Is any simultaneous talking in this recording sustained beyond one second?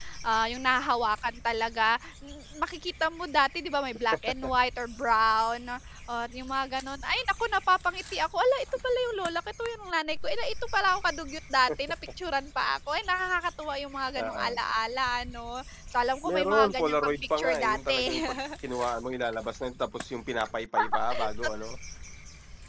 Yes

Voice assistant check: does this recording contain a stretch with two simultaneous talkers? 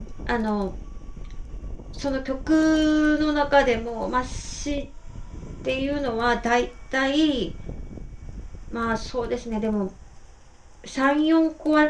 No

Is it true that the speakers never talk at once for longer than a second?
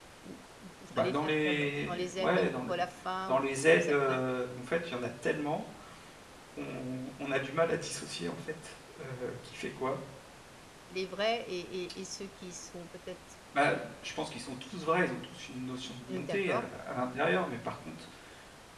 No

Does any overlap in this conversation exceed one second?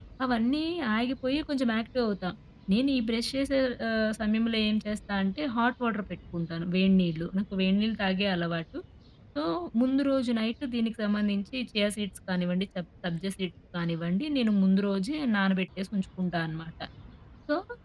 No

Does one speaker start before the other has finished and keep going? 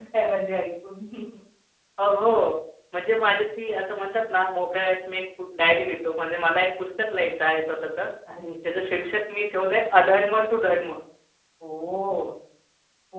No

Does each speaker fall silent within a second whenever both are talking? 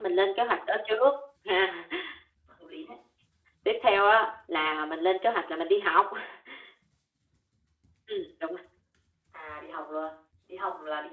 Yes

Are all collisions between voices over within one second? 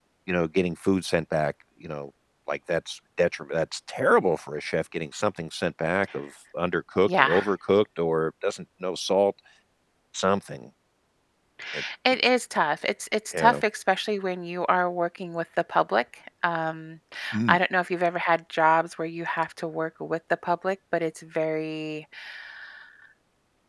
Yes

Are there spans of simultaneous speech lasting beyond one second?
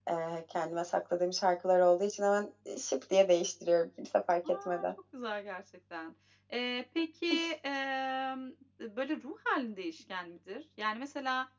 No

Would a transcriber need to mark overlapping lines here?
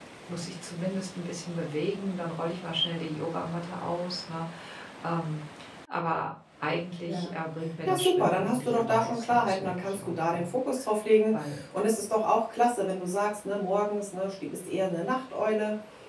Yes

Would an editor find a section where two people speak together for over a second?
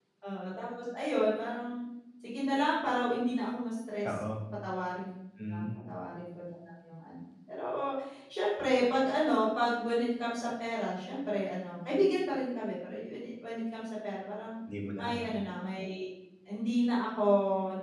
No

